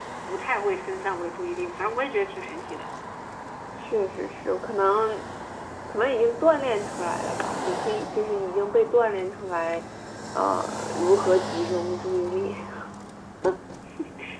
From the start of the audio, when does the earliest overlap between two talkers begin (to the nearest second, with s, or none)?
none